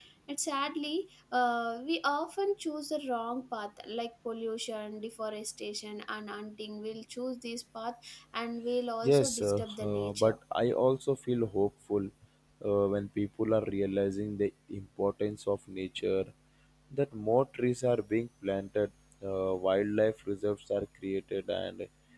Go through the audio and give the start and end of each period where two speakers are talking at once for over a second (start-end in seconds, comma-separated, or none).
9.0-10.4